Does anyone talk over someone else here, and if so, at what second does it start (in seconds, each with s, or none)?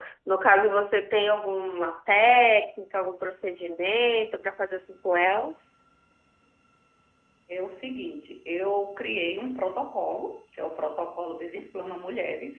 none